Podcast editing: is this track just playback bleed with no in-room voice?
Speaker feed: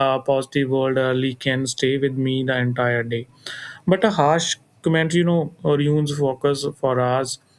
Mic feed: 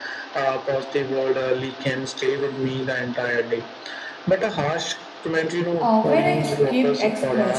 No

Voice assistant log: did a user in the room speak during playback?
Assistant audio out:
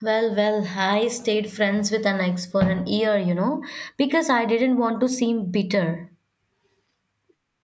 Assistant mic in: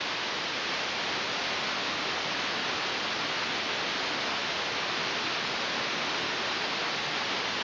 No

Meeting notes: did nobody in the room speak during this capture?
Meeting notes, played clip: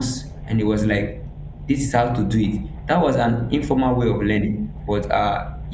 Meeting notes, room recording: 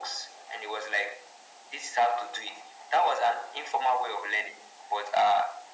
Yes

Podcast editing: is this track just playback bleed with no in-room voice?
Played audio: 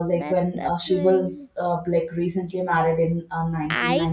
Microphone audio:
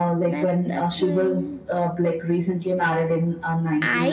Yes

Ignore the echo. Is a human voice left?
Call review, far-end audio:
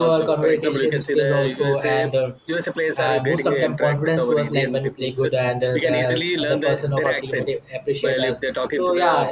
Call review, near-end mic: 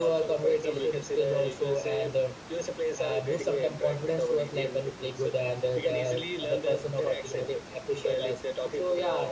No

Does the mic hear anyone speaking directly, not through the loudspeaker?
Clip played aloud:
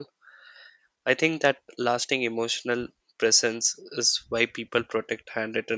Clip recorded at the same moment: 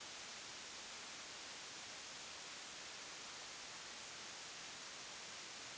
No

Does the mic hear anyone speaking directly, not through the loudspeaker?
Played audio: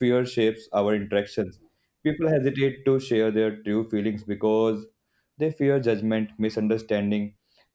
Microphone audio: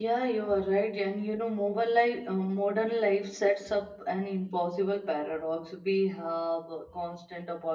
Yes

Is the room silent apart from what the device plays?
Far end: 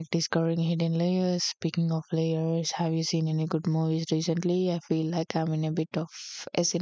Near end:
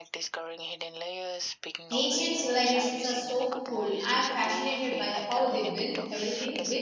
No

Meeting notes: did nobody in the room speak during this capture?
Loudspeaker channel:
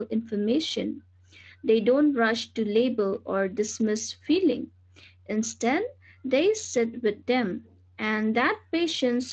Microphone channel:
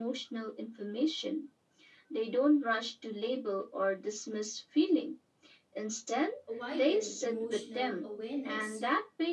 No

